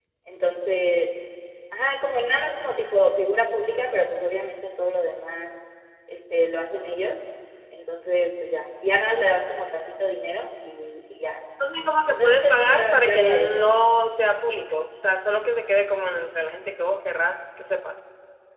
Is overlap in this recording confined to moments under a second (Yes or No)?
No